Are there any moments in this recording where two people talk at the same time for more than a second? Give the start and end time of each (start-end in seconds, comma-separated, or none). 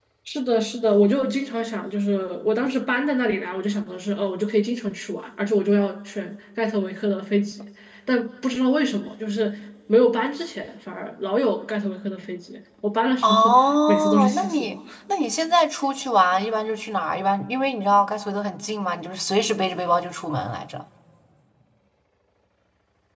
13.2-14.7